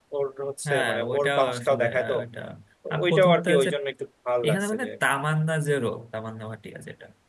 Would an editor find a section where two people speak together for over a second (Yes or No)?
Yes